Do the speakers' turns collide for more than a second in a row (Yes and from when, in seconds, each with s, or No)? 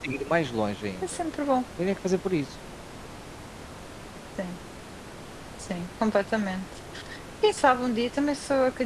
No